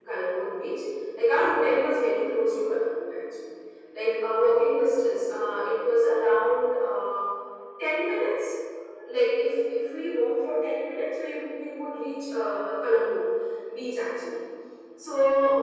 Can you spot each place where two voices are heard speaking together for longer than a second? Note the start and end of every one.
none

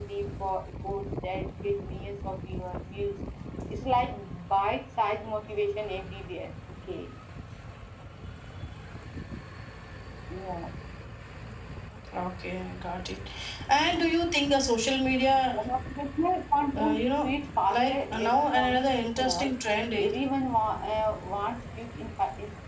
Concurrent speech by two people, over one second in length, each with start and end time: 17.7-19.5

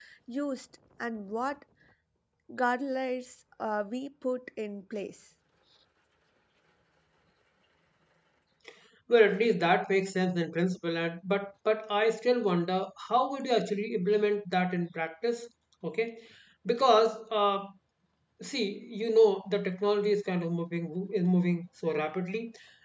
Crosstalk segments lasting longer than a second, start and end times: none

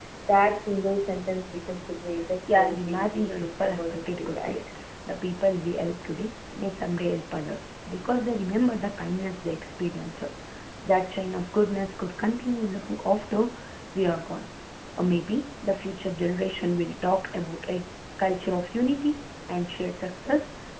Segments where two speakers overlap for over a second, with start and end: 2.5-4.5

